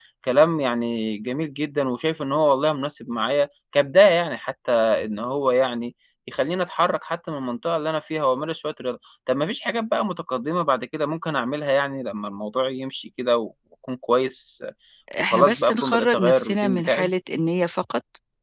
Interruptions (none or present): present